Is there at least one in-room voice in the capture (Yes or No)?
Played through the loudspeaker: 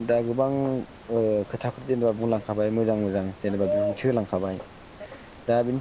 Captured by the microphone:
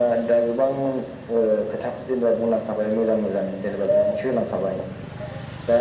No